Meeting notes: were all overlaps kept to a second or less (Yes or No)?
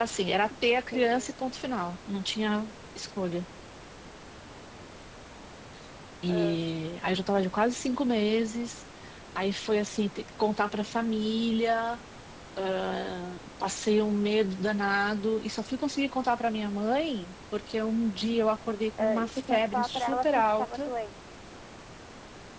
No